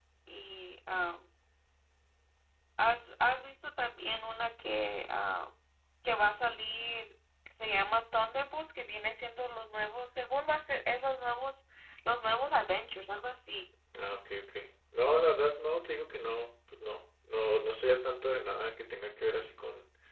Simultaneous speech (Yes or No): No